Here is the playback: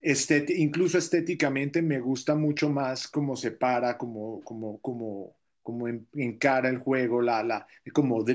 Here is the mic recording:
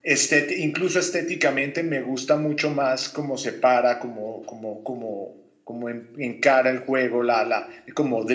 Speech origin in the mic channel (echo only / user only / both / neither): echo only